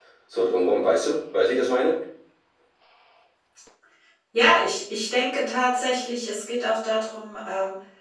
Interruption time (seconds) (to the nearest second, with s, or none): none